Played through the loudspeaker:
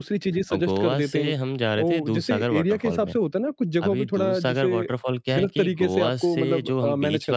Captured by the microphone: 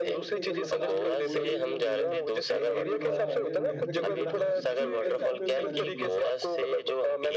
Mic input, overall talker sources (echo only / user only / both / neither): both